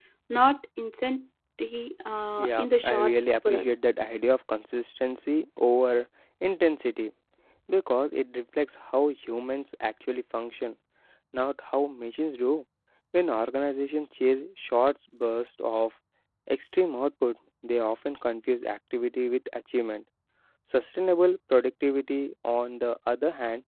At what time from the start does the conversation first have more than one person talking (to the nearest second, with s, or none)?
2 s